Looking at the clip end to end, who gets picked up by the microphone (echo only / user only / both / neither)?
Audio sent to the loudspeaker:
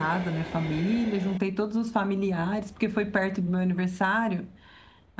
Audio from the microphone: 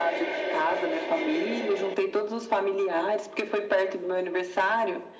echo only